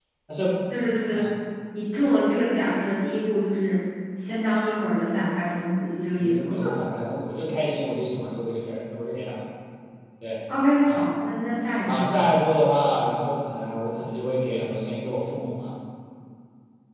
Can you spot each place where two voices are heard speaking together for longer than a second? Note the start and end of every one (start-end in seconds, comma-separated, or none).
none